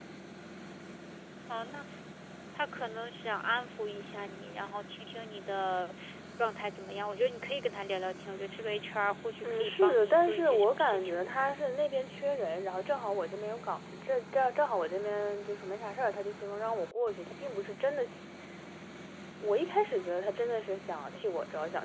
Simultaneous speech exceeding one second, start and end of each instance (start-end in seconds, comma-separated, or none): 9.4-11.3